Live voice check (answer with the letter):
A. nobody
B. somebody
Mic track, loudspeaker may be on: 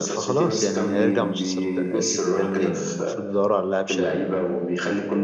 B